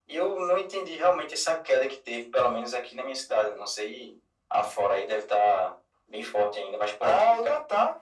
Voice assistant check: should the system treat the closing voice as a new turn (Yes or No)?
Yes